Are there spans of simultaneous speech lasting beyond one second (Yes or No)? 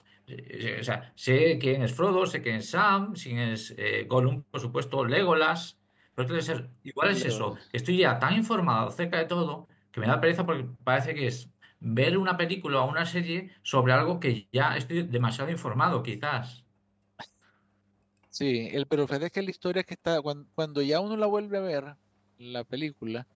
No